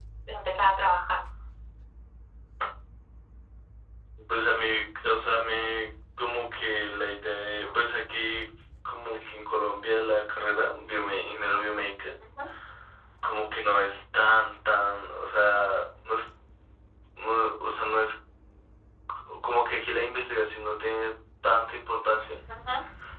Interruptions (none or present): none